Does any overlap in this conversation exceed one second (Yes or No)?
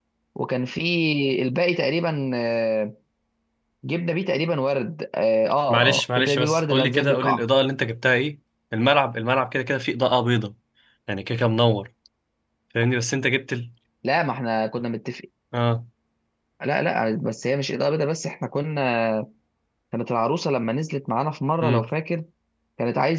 Yes